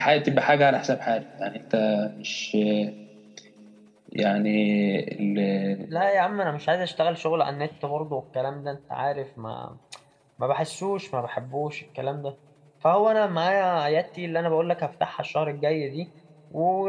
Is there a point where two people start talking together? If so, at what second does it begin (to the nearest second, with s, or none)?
none